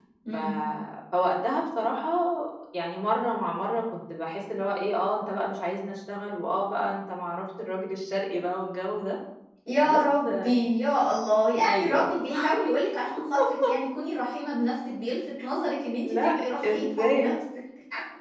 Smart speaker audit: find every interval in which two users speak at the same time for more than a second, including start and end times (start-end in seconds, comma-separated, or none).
16.1-17.3